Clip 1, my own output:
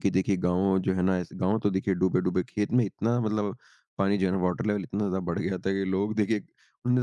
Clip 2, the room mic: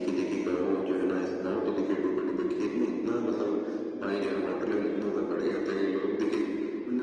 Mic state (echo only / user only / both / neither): echo only